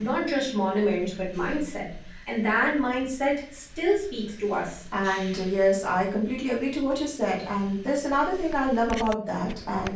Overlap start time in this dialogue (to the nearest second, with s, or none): none